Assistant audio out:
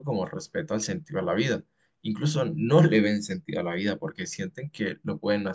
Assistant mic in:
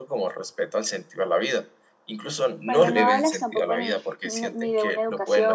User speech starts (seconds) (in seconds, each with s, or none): 2.6 s